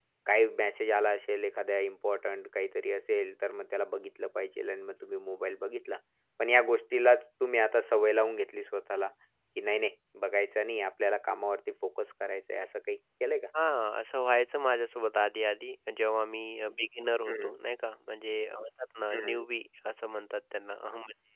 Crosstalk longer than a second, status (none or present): none